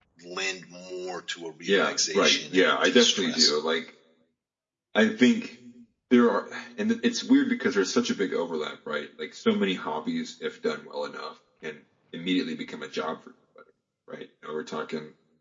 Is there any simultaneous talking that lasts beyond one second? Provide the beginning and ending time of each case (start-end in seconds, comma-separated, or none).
1.7-3.5